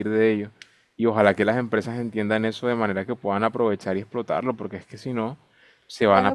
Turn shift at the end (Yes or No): Yes